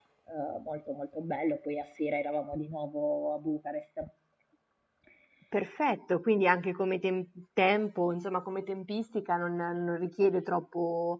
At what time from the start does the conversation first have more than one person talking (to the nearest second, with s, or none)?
none